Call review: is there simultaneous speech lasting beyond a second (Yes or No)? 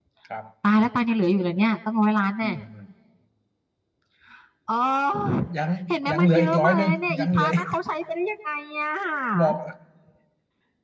Yes